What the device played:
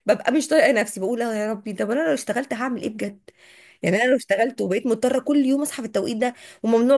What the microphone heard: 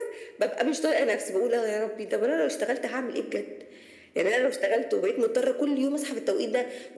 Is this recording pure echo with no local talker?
Yes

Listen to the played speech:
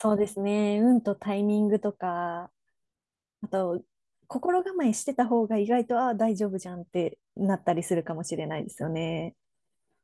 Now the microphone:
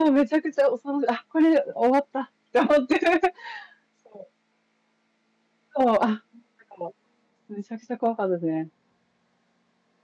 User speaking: Yes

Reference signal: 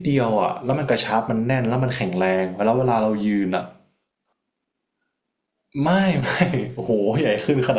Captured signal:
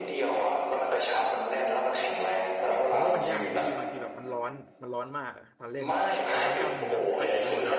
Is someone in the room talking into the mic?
Yes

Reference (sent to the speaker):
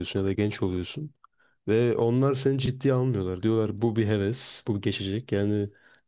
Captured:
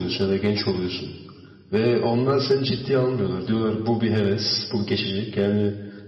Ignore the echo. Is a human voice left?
No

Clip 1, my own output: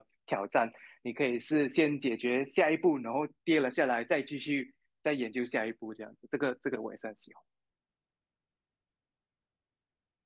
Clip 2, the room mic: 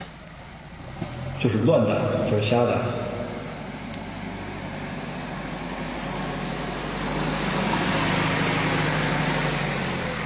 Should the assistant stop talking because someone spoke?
Yes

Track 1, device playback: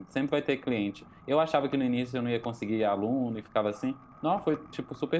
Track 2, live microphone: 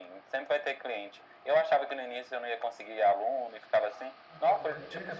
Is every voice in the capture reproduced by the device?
No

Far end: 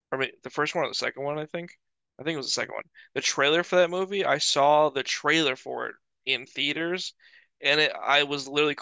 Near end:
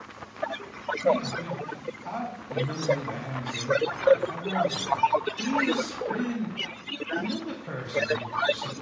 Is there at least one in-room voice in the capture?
Yes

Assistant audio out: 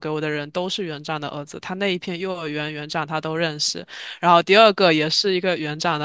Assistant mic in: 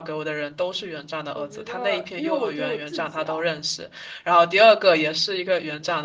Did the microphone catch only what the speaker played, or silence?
No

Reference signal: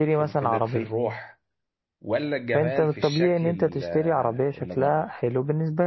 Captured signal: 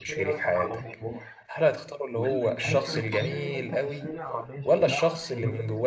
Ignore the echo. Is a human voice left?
Yes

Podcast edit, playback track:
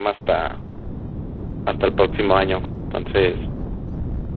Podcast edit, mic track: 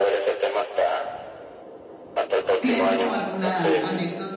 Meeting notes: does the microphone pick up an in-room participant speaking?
Yes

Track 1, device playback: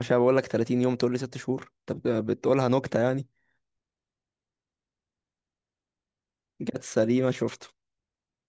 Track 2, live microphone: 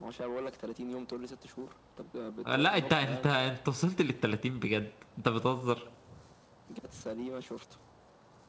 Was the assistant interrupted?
Yes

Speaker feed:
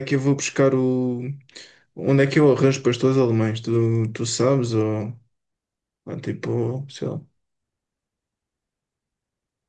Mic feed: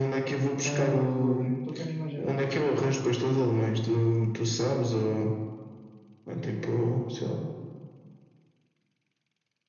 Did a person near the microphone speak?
Yes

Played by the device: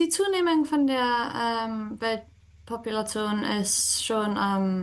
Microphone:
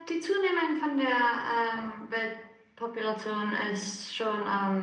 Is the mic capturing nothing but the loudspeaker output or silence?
Yes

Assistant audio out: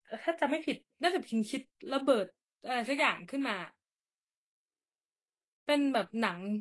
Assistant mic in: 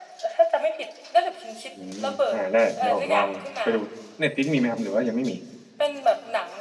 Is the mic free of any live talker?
No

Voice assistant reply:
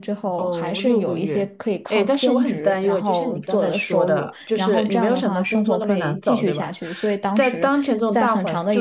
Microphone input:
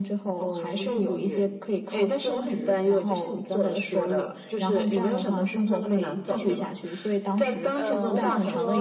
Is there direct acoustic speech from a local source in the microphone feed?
Yes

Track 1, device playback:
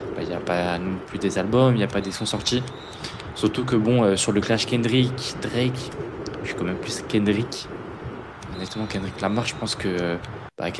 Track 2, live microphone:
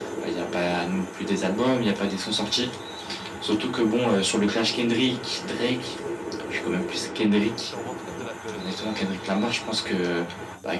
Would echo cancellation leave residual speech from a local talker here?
Yes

